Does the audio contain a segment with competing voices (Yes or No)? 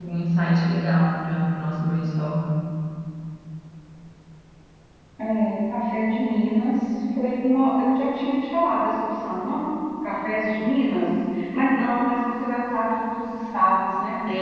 No